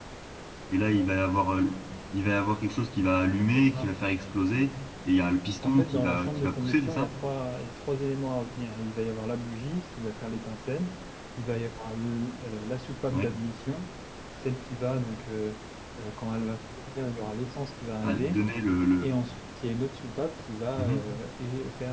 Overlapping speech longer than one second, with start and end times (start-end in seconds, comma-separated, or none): 5.6-7.1